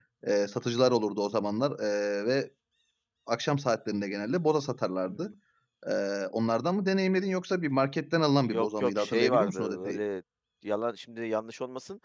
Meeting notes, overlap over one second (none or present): present